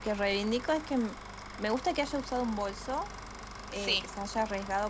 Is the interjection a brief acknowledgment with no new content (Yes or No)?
Yes